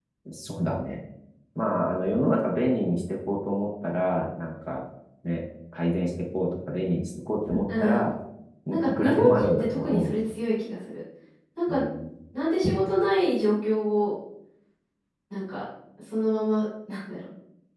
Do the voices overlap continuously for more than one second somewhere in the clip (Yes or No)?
Yes